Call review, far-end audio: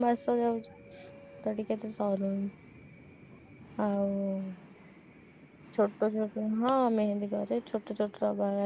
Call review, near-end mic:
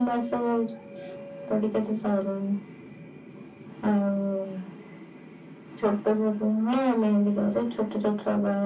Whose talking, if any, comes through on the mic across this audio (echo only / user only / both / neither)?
echo only